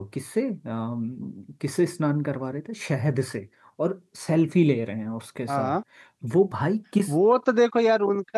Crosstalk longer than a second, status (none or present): none